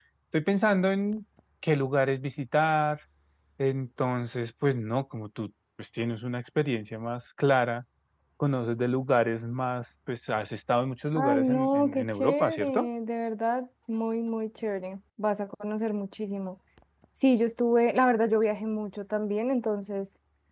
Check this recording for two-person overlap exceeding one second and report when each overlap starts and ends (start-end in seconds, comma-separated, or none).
11.2-12.9